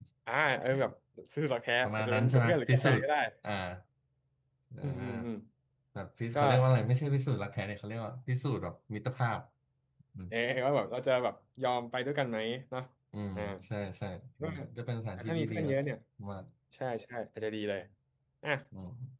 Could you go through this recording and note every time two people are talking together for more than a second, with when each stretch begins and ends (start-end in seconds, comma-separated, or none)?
1.8-3.1